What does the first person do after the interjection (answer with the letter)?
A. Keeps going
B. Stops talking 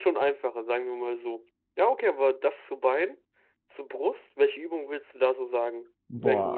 B